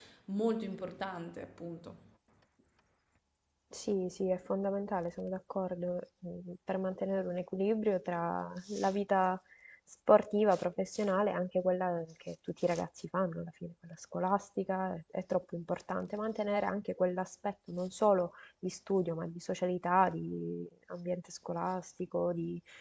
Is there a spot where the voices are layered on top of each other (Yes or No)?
No